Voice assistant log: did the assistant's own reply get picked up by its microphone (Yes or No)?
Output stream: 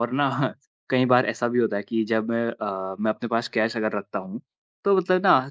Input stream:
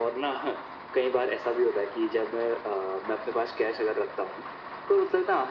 Yes